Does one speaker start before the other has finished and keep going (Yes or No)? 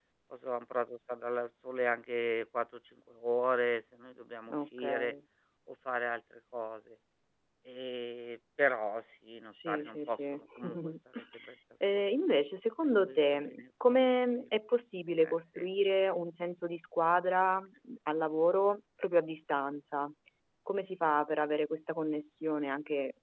Yes